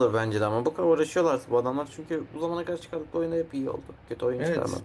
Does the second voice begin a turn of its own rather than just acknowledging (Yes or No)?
Yes